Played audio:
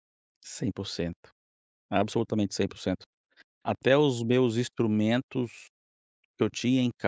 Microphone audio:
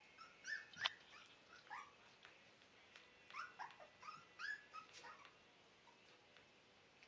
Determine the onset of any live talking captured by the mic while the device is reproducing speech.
none

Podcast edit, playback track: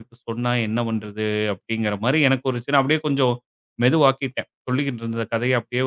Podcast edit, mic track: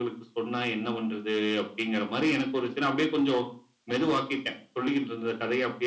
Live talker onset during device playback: none

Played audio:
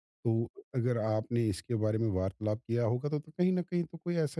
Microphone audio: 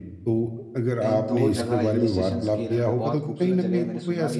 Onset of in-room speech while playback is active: 1.0 s

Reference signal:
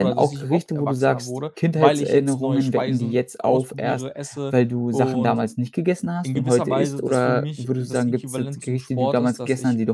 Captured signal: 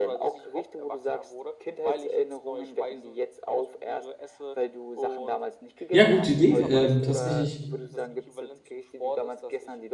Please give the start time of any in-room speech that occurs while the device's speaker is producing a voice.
5.9 s

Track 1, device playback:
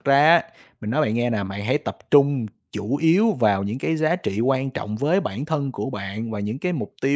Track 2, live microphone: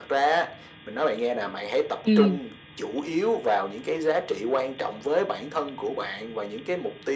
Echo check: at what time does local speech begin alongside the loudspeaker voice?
2.0 s

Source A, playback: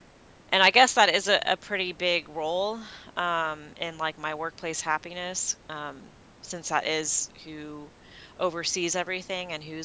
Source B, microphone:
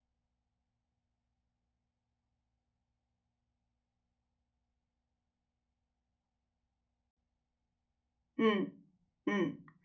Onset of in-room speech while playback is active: 8.4 s

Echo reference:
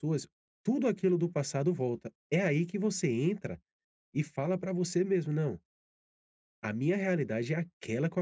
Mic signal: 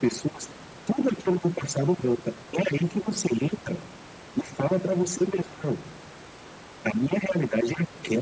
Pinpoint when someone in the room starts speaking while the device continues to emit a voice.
none

